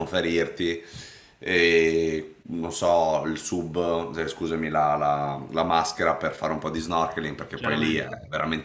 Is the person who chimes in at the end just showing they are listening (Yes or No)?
Yes